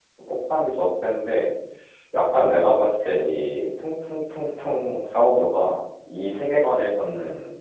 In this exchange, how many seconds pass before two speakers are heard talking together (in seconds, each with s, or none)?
none